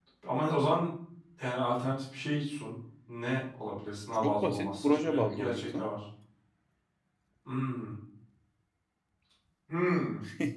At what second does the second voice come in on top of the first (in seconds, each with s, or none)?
4.2 s